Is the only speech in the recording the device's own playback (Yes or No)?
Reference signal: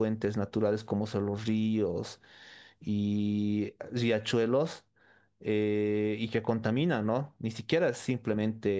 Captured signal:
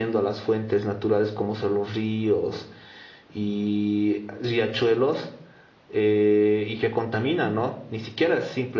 Yes